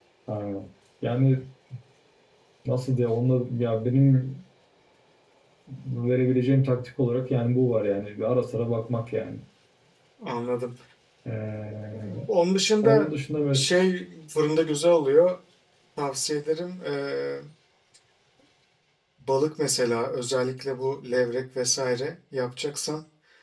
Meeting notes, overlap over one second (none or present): none